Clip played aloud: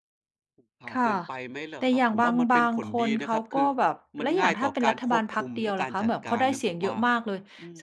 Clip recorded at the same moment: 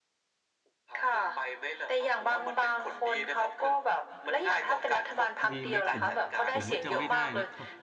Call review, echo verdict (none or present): present